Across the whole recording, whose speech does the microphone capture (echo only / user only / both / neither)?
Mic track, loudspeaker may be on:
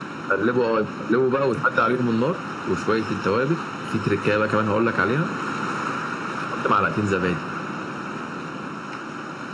echo only